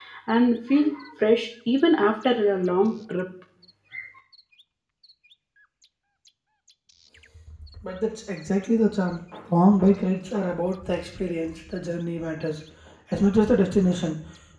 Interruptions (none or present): none